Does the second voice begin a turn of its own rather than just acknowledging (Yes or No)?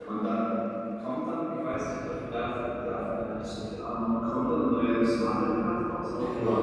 Yes